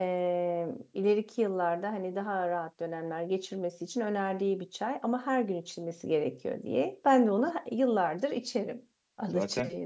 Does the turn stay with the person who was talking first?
No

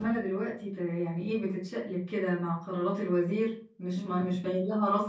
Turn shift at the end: No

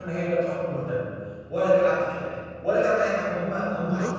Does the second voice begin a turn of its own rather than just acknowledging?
Yes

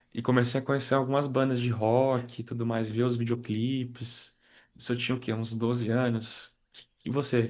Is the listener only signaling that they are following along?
Yes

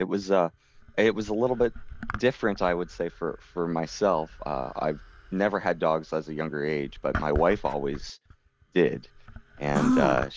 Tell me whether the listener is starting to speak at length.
No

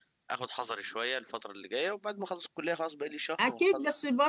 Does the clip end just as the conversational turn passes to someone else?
Yes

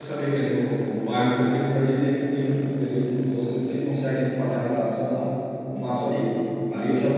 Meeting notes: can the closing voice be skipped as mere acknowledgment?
Yes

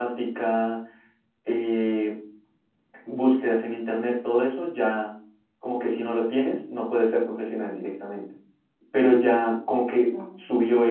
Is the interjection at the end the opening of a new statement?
No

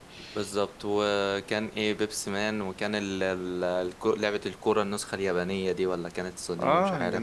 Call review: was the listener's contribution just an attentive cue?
No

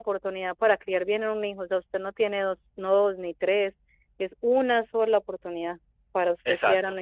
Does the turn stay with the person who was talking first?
No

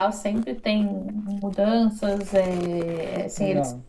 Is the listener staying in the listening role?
Yes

